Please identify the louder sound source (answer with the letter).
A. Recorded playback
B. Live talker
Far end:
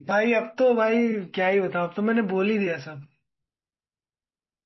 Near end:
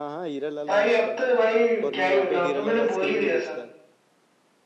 A